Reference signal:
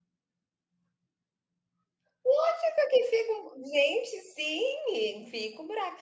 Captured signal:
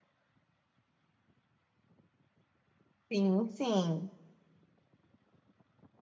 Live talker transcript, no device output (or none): Sim, sim.